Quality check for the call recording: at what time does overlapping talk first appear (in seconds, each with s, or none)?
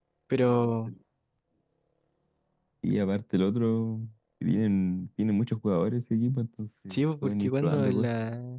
6.9 s